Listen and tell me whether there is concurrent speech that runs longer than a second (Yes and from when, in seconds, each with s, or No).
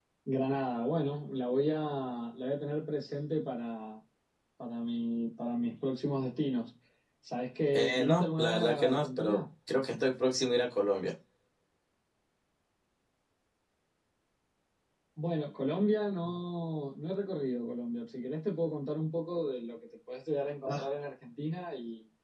Yes, from 7.7 s